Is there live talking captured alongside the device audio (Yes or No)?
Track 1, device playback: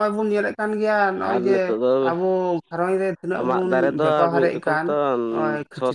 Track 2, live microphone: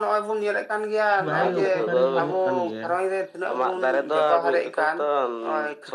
Yes